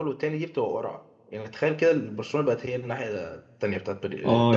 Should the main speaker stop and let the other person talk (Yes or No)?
Yes